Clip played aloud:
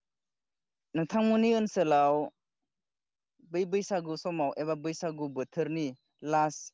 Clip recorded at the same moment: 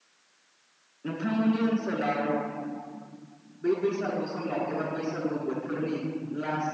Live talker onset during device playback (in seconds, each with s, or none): none